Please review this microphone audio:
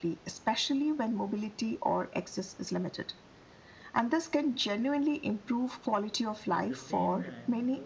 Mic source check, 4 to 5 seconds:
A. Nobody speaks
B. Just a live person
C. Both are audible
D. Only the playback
D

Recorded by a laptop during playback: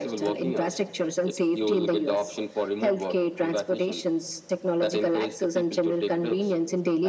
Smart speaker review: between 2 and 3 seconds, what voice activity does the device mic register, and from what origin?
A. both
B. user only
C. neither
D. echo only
D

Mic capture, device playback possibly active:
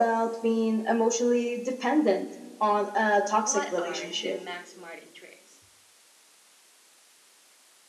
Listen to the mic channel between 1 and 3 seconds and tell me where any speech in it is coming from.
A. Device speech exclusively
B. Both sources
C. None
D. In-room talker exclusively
A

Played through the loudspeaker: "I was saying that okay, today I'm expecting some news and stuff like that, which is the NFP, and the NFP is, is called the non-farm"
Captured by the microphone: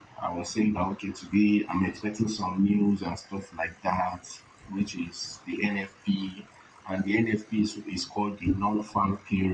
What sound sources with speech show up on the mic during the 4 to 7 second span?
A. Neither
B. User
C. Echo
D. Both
C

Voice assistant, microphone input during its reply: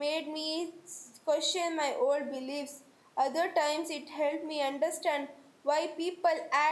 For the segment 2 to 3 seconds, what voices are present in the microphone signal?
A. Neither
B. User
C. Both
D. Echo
B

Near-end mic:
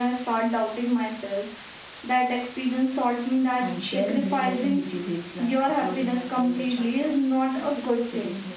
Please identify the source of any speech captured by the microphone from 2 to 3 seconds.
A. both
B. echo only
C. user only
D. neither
B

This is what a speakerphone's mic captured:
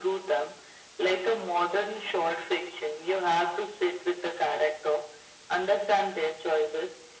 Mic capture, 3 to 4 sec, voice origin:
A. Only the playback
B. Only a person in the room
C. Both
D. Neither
A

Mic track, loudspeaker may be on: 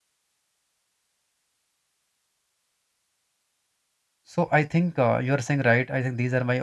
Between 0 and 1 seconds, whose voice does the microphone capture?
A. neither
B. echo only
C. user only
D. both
A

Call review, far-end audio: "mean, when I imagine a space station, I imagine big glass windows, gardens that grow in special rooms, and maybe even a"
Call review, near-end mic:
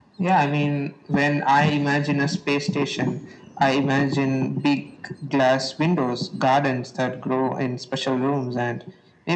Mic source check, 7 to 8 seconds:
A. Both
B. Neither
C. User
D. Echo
D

